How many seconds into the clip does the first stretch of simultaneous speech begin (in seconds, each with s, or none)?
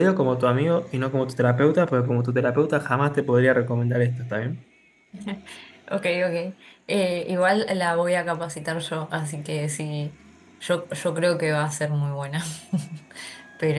none